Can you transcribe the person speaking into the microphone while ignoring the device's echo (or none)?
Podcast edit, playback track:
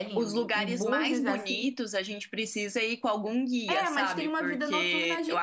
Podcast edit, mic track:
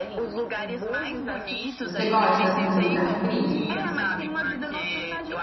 Você gosta assim de lugar frio?